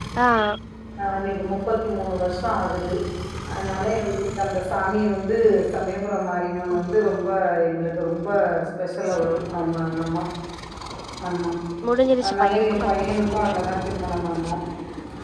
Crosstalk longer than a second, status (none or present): present